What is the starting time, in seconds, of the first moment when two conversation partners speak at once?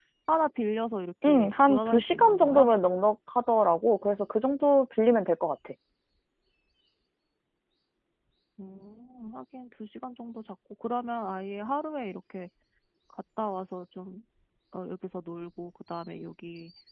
1 s

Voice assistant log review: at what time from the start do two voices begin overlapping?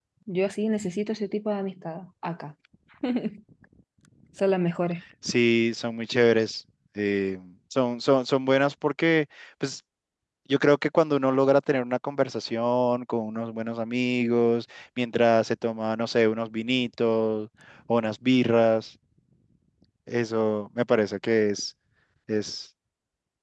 none

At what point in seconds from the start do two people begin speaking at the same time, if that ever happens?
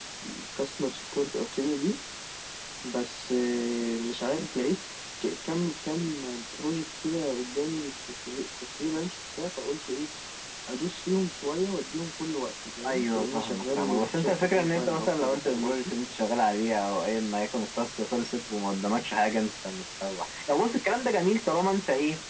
13 s

